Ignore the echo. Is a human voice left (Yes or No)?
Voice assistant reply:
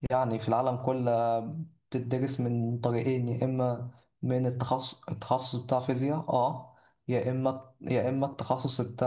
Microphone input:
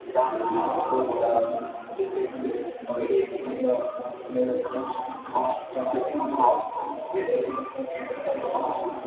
No